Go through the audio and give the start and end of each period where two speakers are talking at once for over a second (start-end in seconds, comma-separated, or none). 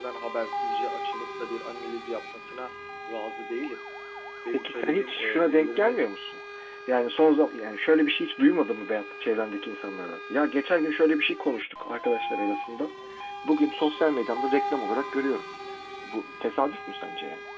4.5-6.0